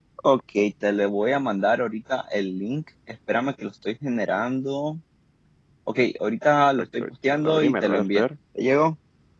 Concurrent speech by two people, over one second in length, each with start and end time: 6.8-8.2

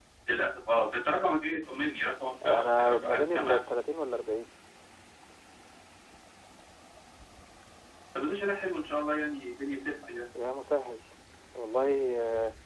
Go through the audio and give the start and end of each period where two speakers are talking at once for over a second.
2.5-3.6

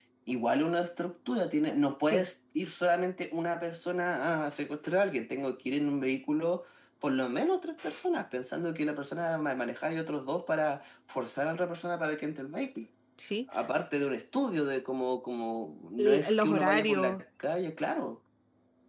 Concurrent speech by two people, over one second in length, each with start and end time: 16.0-17.2

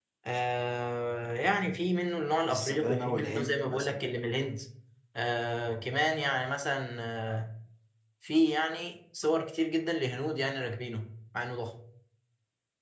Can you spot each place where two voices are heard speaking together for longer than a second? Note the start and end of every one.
2.5-4.1

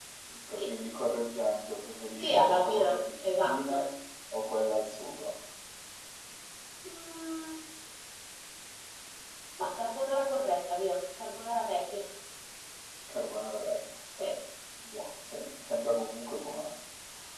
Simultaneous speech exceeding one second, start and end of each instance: 2.1-3.9

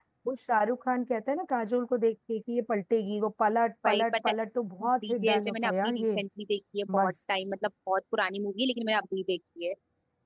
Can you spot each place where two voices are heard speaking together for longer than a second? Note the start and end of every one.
4.8-6.2

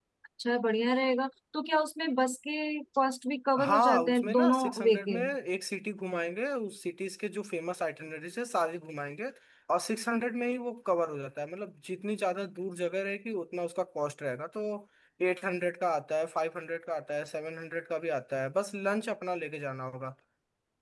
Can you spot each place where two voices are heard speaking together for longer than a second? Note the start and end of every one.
3.6-5.2

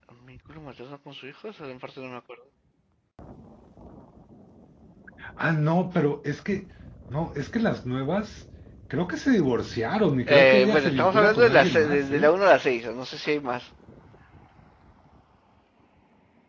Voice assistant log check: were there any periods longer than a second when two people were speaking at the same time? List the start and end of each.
10.3-12.3

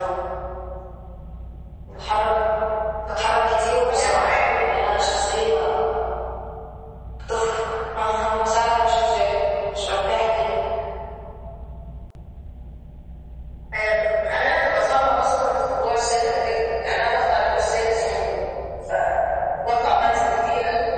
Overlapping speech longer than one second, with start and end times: 3.9-5.1

